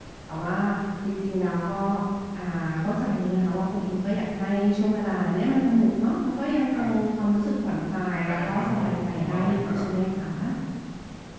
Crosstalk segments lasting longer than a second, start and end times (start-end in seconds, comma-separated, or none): 8.3-9.9